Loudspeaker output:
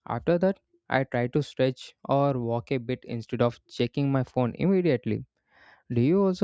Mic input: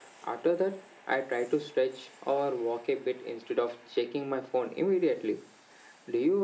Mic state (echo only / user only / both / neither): echo only